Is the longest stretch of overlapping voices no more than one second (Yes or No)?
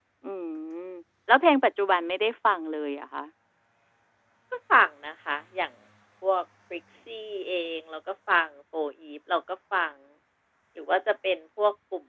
Yes